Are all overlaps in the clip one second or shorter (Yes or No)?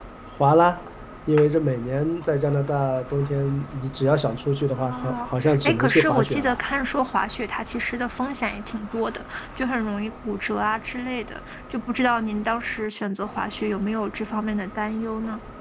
No